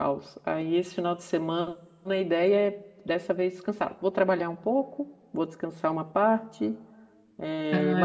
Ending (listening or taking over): listening